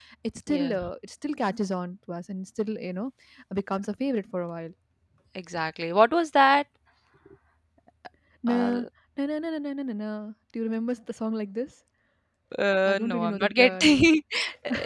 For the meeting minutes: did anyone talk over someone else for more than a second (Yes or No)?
Yes